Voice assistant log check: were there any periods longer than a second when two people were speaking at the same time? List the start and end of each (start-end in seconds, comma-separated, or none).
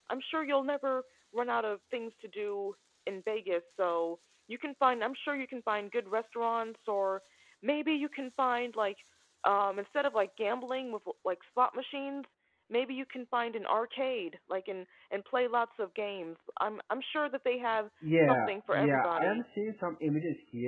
18.2-19.4